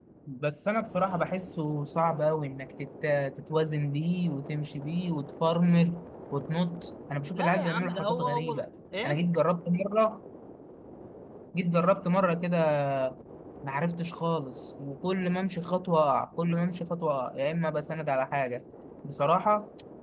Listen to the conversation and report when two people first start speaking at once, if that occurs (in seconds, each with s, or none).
7.3 s